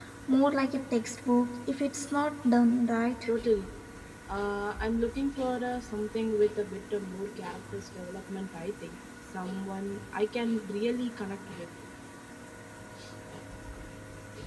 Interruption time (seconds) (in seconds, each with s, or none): none